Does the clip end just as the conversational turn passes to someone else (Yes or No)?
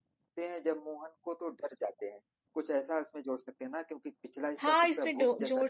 Yes